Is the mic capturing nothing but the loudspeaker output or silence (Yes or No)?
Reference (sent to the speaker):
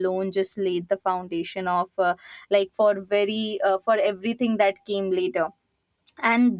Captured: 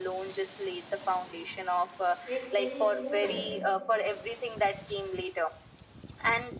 No